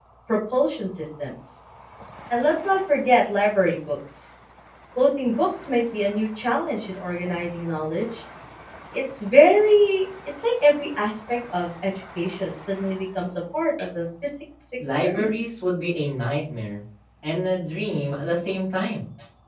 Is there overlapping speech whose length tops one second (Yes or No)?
No